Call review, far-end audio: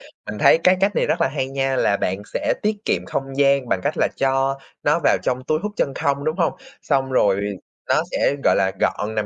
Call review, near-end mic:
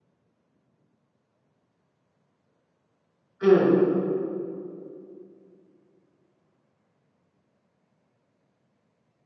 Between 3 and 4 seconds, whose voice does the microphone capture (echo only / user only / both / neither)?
user only